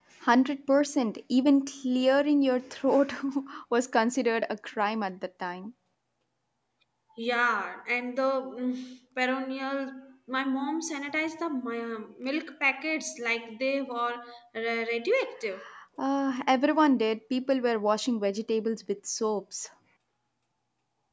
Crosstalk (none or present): none